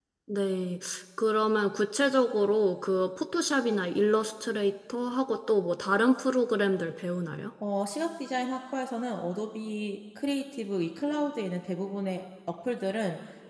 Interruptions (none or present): none